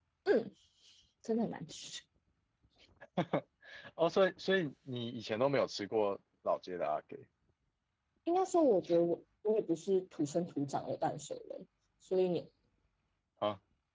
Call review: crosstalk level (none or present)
none